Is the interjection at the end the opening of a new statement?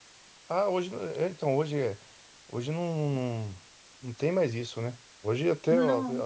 No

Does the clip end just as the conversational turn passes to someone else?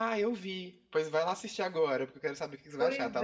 Yes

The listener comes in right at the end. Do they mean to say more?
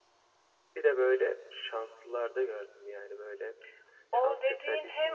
Yes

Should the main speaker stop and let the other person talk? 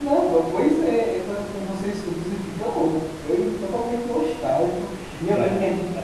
No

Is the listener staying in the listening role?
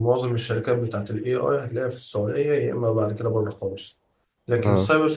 Yes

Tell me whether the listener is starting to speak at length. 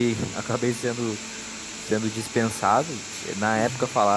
No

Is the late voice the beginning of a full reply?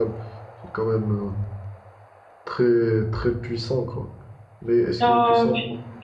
Yes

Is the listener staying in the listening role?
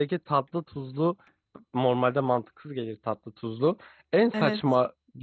Yes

